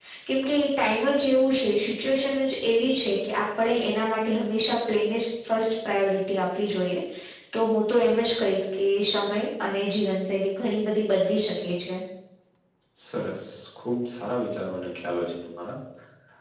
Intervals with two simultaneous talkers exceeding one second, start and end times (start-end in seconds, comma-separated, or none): none